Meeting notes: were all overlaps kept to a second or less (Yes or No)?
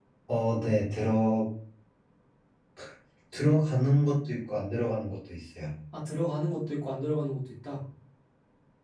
Yes